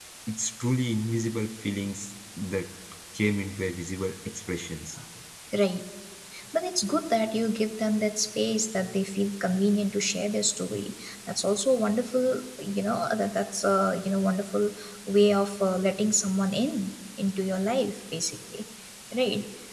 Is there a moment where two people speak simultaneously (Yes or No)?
No